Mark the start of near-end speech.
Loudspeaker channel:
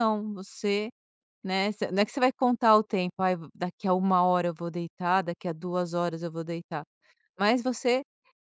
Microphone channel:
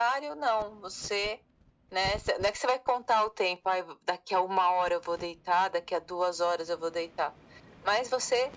none

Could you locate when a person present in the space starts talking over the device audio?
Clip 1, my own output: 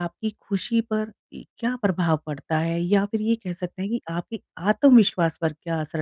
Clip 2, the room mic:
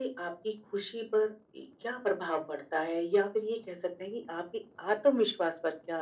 none

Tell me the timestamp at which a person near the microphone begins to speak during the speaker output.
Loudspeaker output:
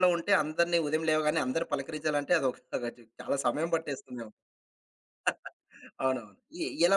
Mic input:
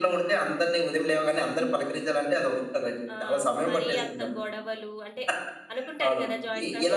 3.1 s

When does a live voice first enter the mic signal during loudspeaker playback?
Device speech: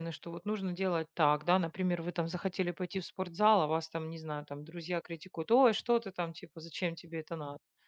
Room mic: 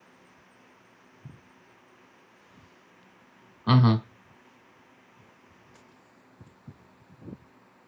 3.6 s

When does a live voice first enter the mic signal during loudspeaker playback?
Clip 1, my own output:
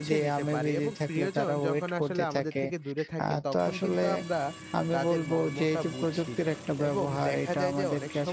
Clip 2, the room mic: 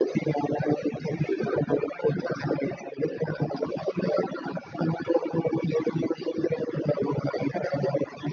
none

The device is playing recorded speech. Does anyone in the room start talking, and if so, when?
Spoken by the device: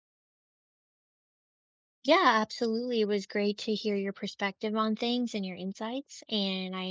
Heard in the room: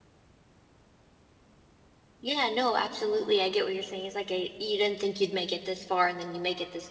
2.2 s

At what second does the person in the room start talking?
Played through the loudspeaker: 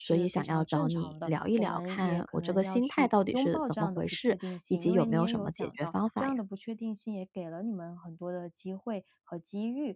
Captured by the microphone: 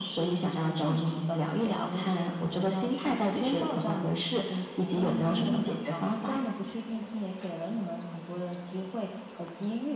5.4 s

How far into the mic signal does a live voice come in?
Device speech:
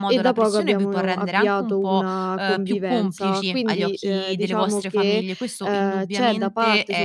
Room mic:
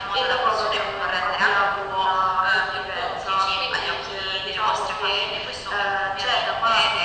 none

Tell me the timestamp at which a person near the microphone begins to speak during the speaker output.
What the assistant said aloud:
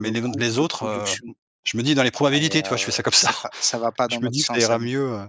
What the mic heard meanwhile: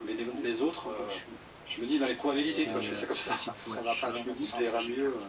2.5 s

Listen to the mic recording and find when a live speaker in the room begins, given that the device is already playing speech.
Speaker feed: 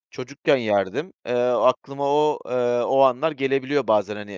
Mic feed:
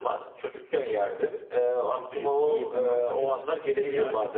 2.0 s

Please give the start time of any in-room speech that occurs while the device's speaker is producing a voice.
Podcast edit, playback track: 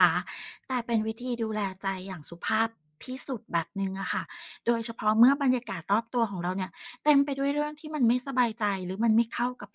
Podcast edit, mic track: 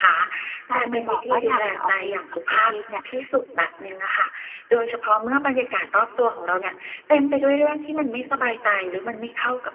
0.7 s

